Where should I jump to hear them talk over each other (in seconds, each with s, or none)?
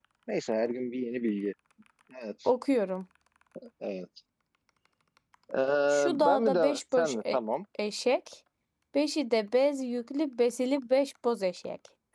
5.9 s